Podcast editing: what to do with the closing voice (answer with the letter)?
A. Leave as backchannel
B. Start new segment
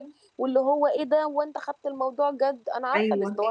B